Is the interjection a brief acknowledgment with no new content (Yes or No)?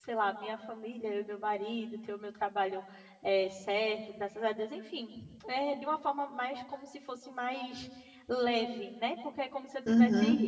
Yes